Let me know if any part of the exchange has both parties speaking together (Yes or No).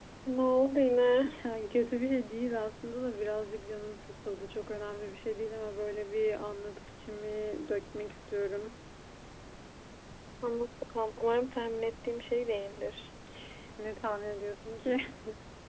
No